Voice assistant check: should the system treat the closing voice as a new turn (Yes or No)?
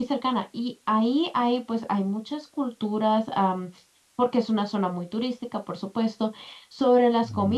No